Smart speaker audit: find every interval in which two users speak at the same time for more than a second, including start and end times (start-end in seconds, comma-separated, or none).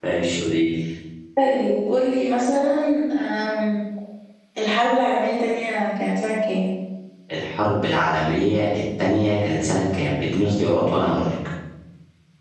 none